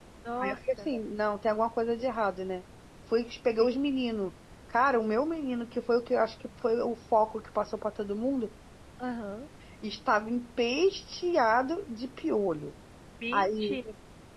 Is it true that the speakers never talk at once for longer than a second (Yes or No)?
Yes